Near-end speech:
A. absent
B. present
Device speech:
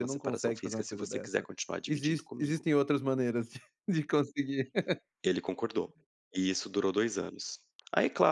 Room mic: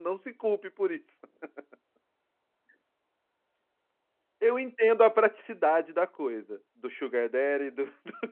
B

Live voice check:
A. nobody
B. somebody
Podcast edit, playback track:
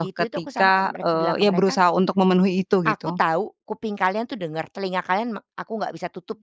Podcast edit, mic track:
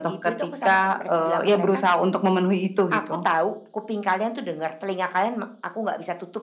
A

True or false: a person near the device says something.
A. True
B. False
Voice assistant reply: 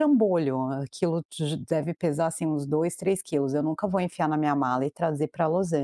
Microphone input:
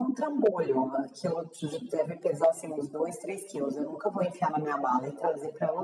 B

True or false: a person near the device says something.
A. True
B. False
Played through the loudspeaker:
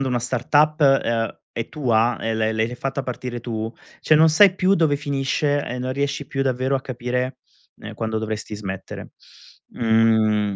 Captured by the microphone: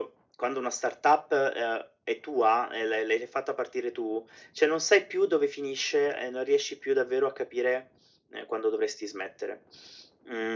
B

